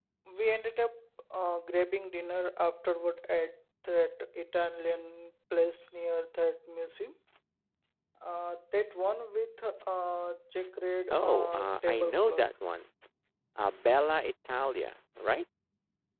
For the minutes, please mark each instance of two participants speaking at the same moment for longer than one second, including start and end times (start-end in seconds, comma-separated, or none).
11.1-12.4